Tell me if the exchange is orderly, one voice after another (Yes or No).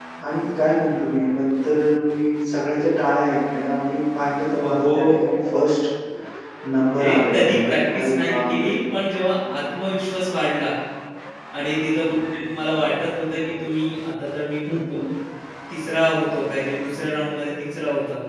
No